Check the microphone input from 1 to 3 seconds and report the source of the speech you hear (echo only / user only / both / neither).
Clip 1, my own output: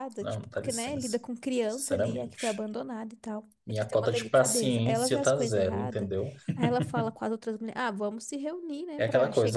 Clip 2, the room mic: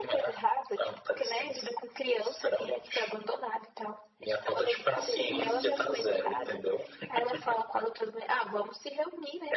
echo only